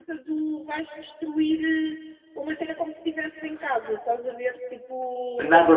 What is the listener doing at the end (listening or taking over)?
taking over